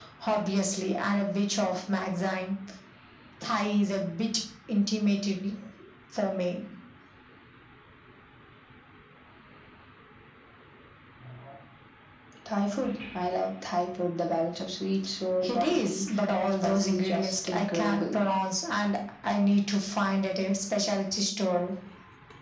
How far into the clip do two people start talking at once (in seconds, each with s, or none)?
15.4 s